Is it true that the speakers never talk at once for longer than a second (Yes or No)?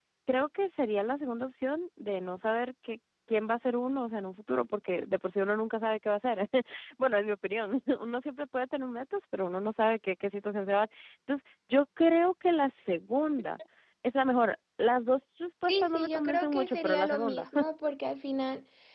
No